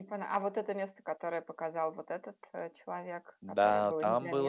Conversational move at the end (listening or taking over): taking over